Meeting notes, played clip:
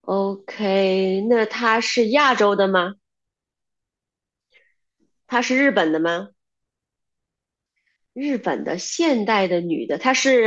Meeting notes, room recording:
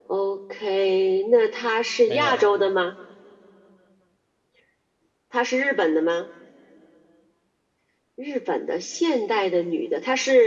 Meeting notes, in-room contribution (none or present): present